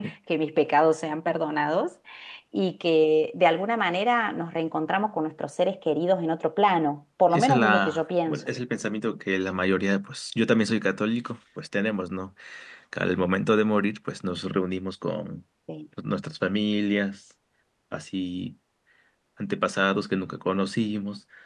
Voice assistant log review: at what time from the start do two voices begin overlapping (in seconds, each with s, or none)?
7.3 s